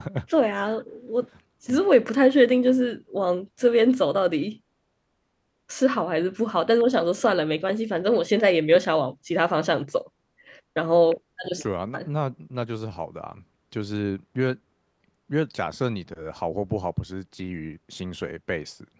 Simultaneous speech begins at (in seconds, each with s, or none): none